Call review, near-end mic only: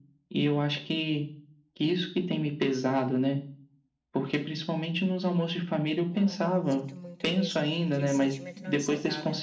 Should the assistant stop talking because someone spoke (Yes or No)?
Yes